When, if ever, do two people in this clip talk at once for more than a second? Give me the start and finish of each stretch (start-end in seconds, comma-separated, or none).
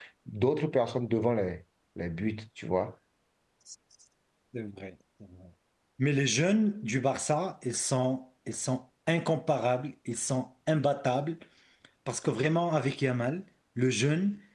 none